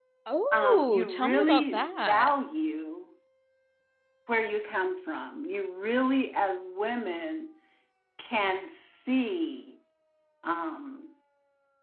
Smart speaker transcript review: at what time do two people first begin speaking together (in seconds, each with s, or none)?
0.5 s